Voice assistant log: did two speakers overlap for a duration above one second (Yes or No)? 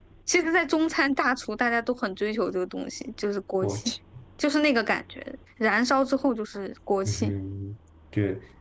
No